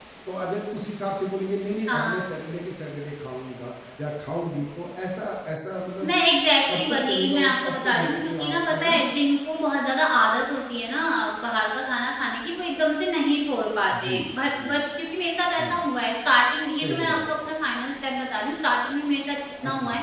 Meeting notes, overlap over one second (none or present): present